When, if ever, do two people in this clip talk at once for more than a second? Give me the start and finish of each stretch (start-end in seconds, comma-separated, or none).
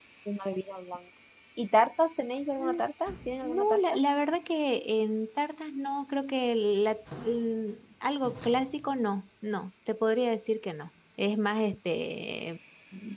none